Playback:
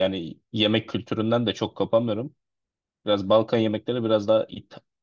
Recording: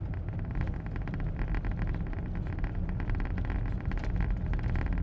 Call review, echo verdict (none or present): none